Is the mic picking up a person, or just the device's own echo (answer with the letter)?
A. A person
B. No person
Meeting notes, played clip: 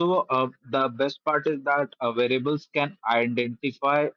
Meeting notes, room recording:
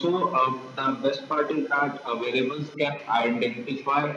B